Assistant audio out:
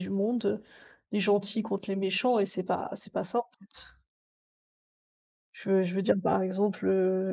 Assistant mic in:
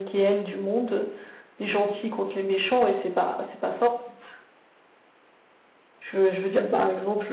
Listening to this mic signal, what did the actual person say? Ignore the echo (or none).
none